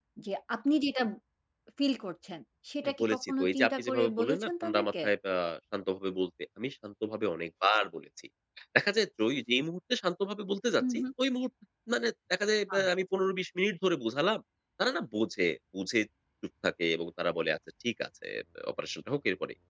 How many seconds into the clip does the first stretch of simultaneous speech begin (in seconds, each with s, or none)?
2.8 s